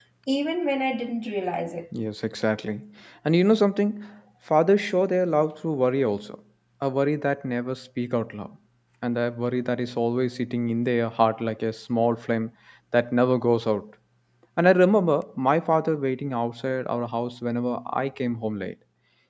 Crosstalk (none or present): none